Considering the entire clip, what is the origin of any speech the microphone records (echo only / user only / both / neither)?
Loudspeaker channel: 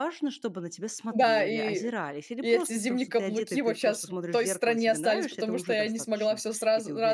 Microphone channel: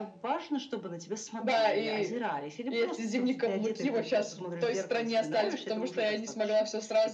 echo only